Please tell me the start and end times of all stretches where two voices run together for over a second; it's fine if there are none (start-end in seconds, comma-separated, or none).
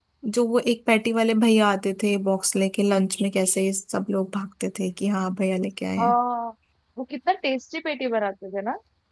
none